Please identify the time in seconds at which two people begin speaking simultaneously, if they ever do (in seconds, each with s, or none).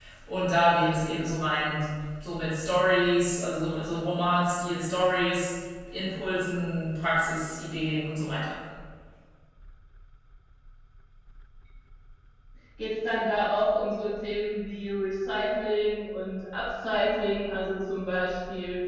none